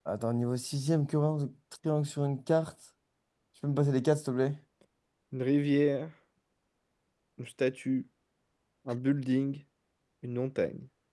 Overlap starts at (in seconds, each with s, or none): none